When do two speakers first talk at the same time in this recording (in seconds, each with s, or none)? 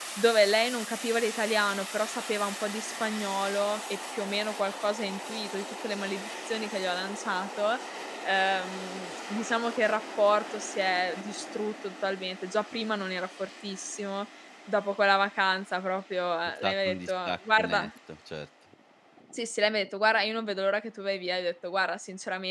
16.6 s